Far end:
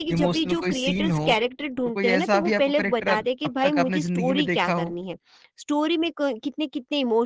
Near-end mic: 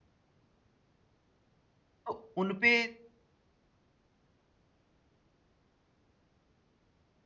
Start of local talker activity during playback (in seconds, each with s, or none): 2.1 s